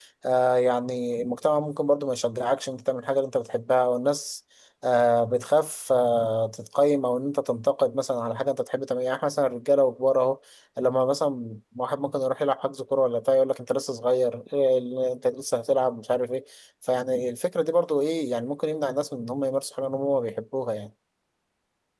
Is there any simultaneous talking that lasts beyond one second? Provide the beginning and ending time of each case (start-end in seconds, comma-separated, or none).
none